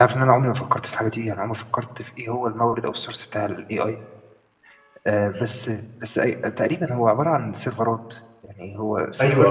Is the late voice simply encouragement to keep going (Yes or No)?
No